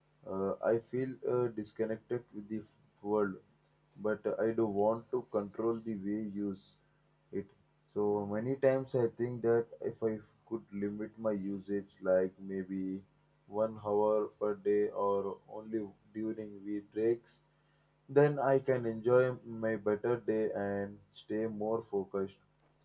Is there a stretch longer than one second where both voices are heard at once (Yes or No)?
No